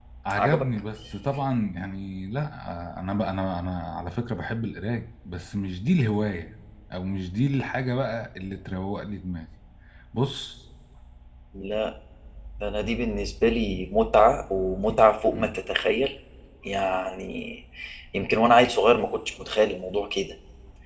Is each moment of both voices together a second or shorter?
Yes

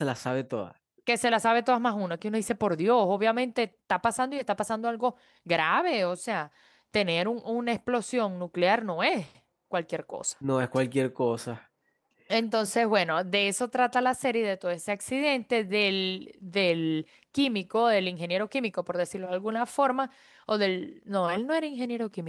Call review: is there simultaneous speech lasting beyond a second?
No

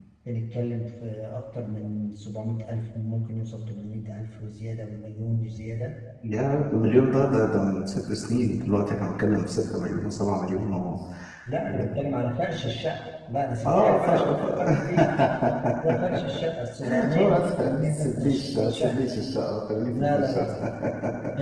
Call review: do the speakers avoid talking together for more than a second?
No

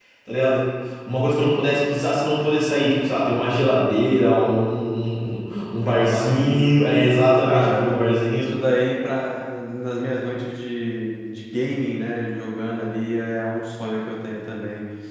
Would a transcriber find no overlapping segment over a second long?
No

